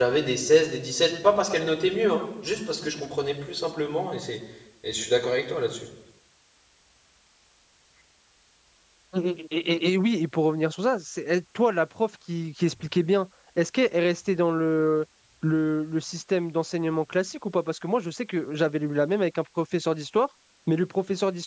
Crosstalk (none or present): none